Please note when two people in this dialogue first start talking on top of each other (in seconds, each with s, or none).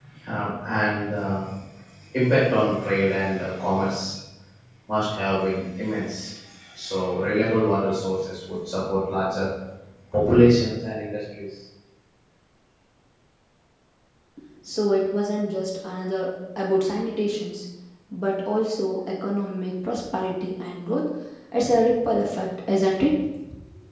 none